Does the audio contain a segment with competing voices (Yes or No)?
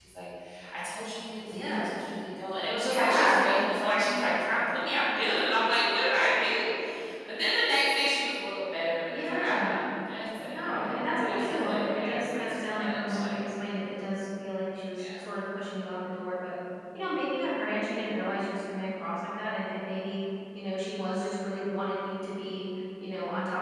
Yes